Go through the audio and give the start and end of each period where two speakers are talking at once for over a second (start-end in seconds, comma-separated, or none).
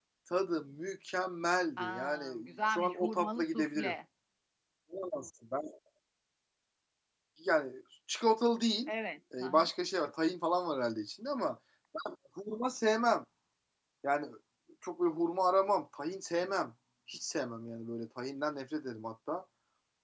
1.8-3.9